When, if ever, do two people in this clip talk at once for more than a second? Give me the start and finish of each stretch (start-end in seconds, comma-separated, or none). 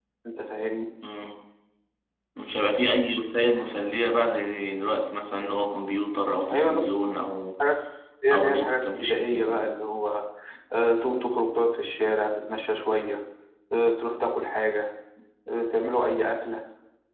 8.3-9.7